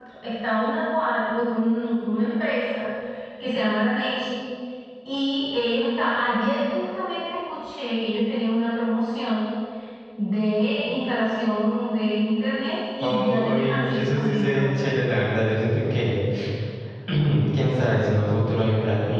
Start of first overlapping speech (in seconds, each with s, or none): 13.0 s